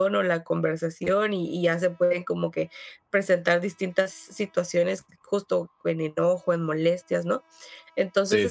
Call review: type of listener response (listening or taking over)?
listening